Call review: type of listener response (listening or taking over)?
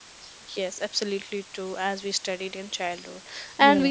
listening